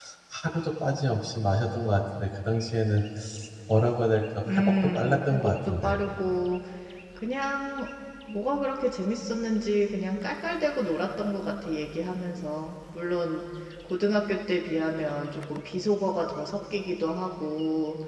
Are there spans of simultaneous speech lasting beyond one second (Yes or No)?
Yes